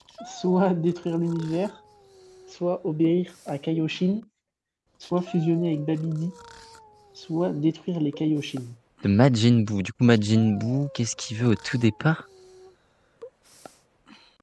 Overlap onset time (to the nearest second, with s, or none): none